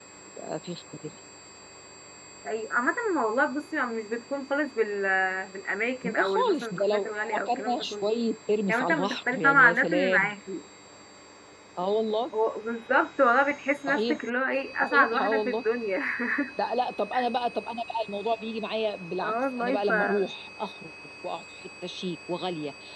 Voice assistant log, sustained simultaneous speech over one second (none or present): present